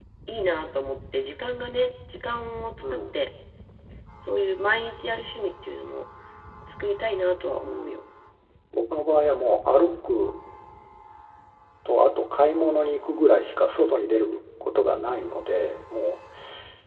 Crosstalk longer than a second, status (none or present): none